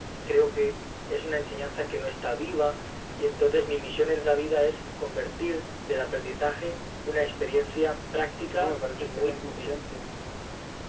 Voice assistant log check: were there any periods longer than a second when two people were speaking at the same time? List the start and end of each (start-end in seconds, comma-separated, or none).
8.5-9.8